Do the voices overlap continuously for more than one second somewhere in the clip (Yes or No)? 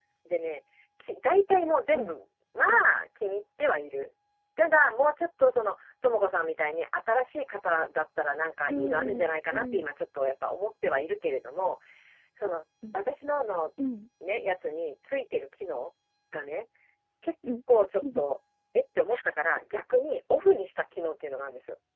Yes